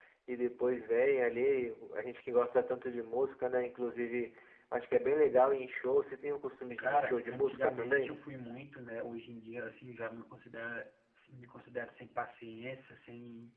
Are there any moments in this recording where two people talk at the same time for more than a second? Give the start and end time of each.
6.8-8.1

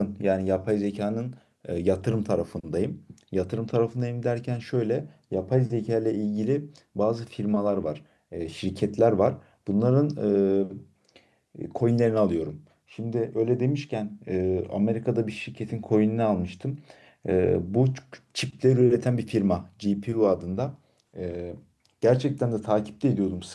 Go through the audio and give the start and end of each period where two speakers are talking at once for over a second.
none

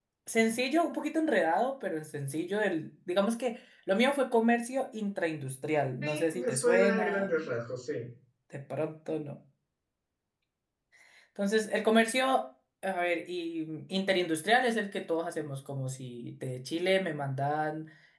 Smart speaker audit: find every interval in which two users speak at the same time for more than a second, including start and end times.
6.0-7.3

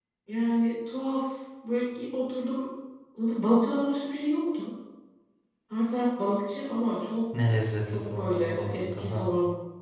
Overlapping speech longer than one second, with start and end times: 7.9-9.3

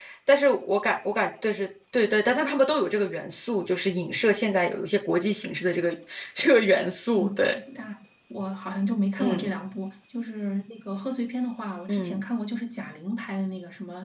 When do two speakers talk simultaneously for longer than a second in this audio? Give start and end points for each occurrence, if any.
none

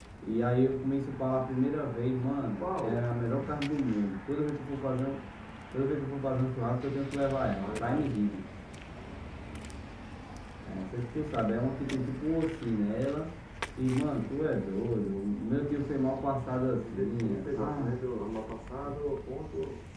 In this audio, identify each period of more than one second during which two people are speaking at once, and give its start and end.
16.7-18.0

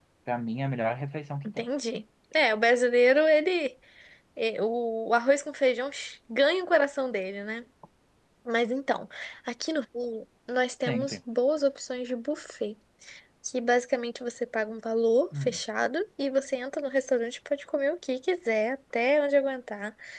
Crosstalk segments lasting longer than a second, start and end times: none

